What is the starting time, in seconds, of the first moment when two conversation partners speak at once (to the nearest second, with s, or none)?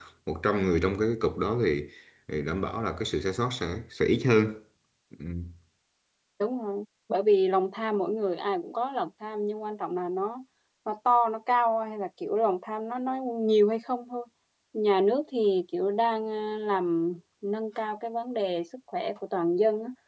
none